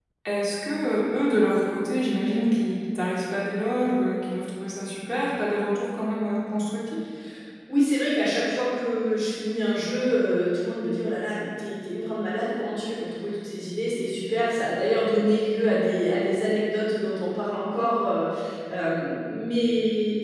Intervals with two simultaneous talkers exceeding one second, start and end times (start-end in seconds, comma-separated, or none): none